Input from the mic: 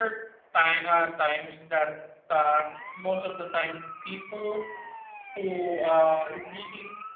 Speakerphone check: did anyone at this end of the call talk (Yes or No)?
Yes